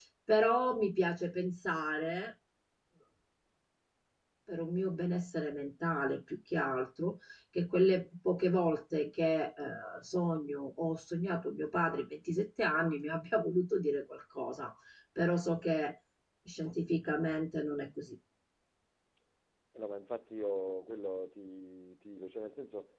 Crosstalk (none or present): none